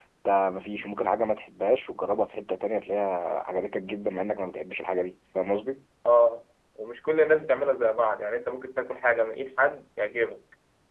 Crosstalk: none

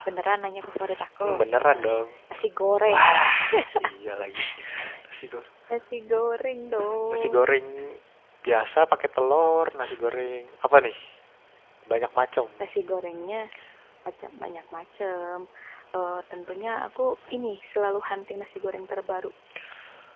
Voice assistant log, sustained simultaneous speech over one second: none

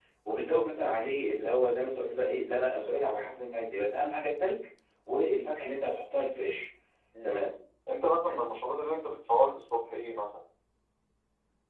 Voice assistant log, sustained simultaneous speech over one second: none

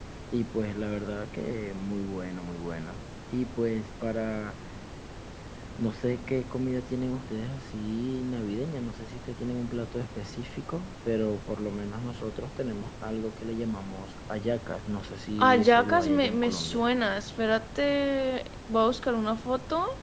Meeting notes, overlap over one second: present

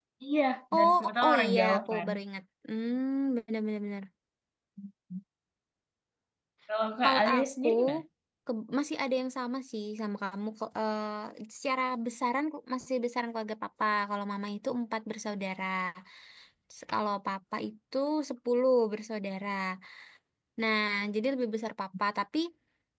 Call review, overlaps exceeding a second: present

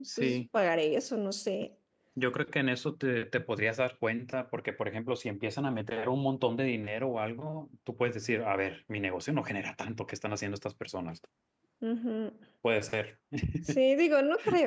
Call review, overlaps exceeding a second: none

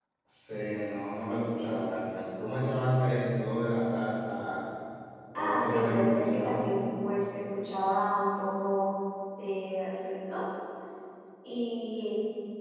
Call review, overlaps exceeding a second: present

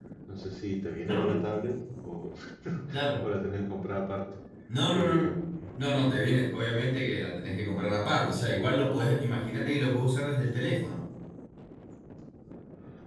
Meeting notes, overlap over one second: none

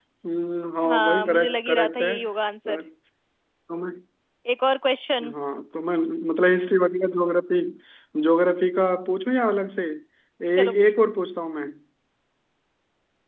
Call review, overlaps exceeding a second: present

